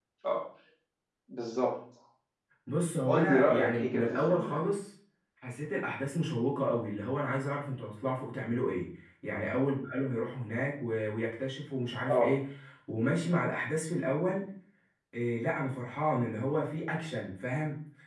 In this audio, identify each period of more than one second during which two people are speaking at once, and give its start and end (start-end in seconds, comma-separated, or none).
3.0-4.6